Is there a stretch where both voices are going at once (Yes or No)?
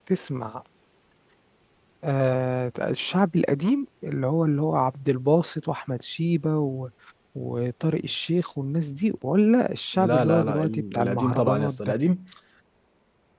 Yes